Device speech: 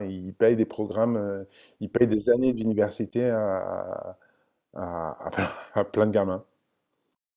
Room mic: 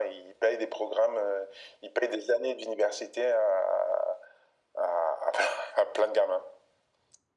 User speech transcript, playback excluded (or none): none